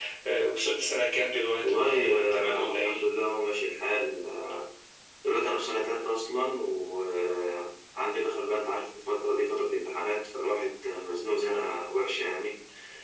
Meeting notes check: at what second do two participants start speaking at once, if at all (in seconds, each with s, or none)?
1.6 s